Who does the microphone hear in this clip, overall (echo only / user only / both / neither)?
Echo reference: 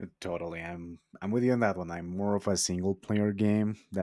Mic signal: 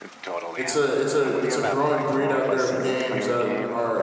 both